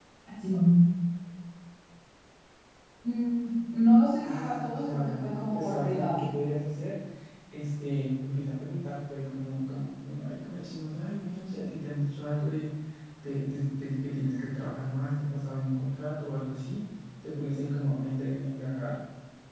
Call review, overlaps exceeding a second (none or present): present